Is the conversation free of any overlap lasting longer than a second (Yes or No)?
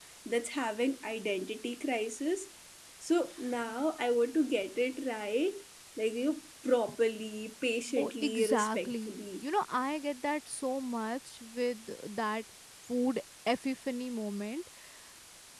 No